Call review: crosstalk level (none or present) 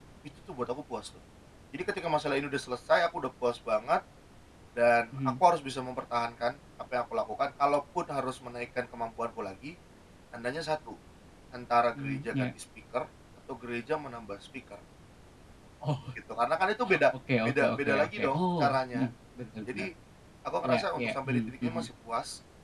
present